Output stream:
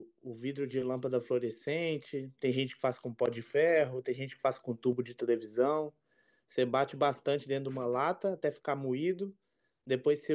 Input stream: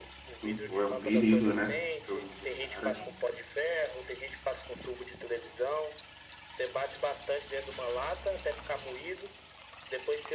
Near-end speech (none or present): present